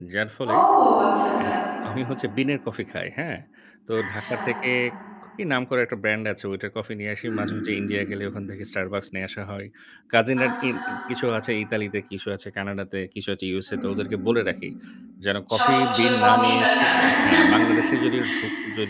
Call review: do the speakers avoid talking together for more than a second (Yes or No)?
No